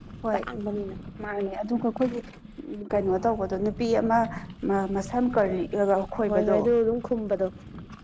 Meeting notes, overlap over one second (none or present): none